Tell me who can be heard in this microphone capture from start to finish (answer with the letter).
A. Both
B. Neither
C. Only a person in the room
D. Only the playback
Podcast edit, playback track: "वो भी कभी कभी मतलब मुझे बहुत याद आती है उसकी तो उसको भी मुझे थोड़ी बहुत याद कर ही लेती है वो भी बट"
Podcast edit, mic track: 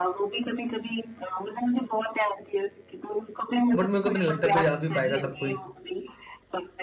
A